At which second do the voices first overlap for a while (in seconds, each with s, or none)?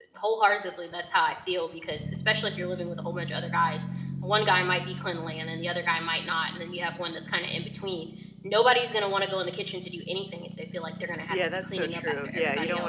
11.3 s